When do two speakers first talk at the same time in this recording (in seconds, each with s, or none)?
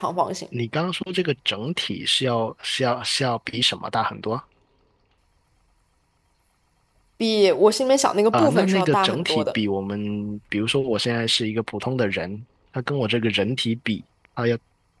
8.3 s